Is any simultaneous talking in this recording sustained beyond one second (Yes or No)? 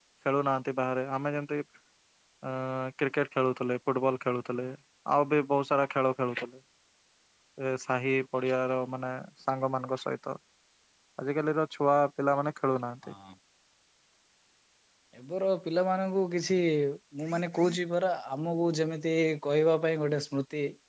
No